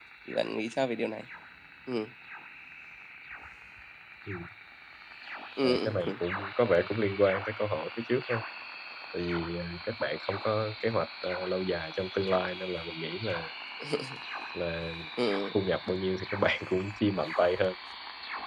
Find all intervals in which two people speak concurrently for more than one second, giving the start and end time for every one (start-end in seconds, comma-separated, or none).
none